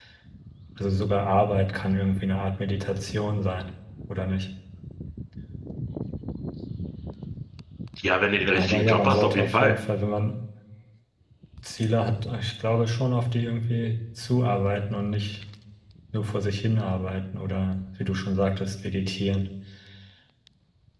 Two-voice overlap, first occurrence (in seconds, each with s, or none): 8.5 s